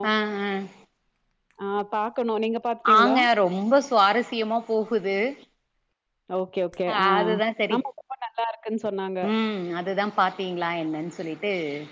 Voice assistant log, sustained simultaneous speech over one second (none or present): none